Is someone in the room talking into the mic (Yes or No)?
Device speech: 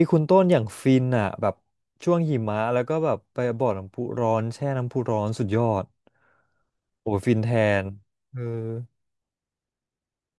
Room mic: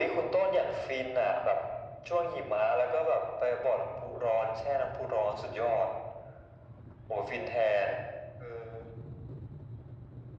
No